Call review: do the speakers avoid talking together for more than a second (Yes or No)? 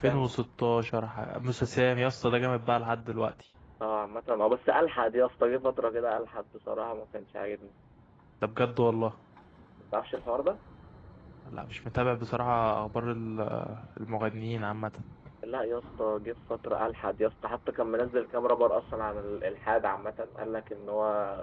Yes